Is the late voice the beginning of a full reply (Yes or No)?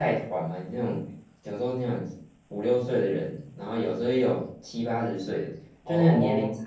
No